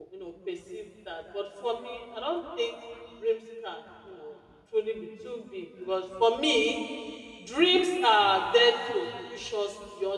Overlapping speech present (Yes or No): No